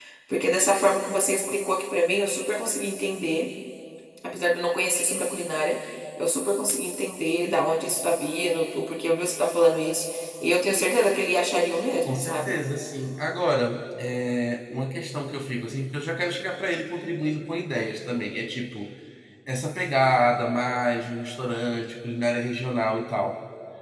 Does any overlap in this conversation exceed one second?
No

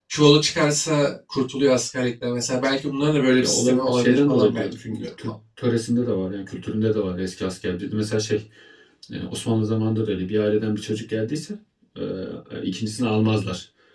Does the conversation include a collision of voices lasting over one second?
Yes, from 3.4 s

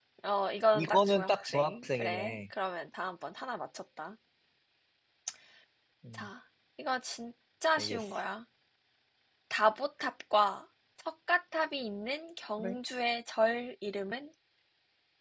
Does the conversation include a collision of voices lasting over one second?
Yes, from 0.7 s

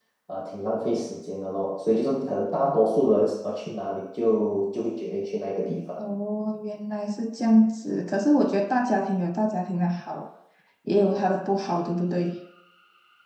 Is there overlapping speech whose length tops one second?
No

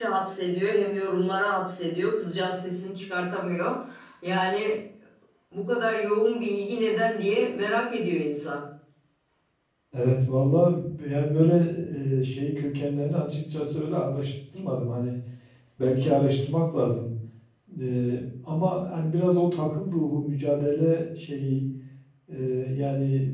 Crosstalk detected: No

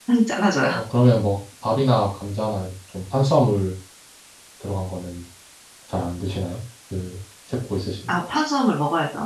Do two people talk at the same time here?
No

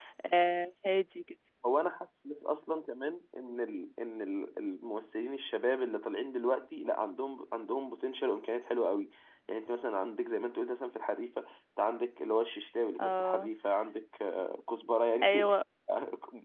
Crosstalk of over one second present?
No

